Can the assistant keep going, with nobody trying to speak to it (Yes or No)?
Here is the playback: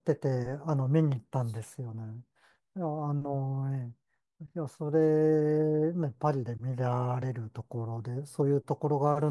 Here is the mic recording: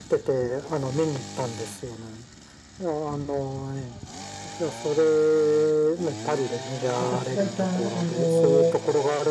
No